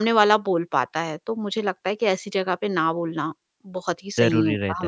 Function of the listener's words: taking over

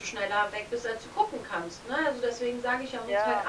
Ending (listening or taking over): listening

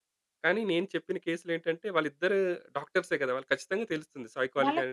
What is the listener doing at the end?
taking over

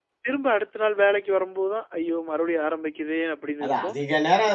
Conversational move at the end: taking over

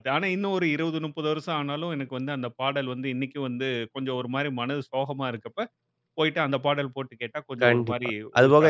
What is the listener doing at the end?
taking over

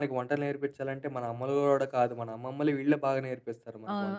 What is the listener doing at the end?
taking over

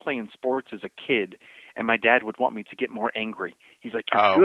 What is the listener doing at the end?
listening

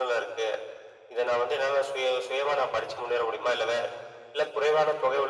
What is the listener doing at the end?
taking over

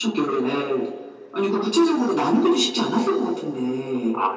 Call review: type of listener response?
taking over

